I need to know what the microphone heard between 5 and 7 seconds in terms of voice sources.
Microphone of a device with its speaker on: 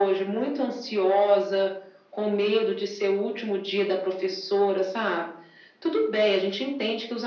echo only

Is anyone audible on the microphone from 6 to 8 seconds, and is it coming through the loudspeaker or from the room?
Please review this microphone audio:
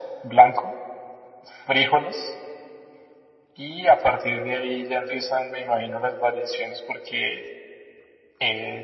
echo only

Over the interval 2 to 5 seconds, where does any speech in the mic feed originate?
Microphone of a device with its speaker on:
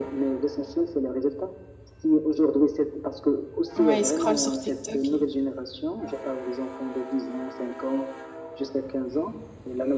both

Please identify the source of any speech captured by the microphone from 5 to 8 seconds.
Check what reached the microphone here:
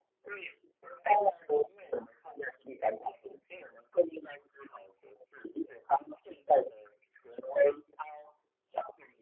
echo only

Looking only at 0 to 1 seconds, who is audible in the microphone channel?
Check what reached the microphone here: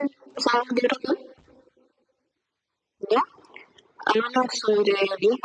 echo only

